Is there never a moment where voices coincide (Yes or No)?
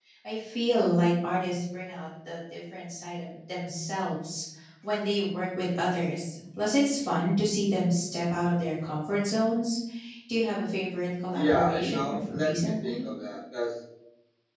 No